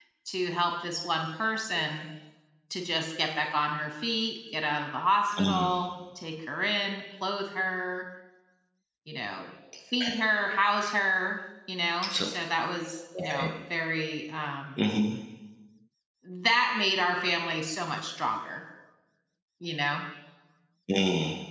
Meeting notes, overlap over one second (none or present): none